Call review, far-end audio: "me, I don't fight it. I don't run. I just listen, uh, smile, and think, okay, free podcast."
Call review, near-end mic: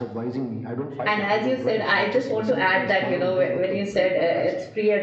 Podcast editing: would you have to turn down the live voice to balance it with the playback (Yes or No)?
Yes